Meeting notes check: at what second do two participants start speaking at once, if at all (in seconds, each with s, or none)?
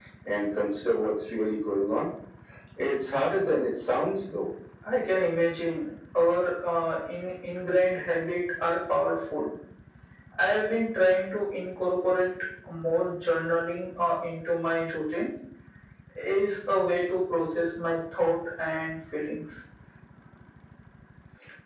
none